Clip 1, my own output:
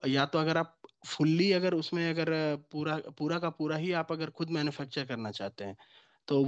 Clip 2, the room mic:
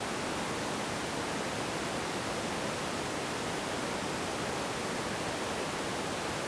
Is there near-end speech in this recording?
No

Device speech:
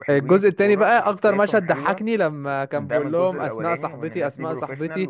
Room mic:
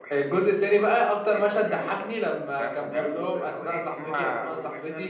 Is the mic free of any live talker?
No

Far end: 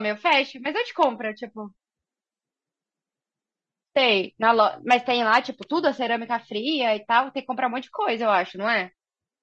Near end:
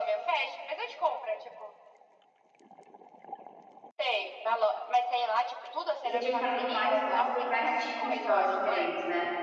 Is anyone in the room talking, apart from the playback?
Yes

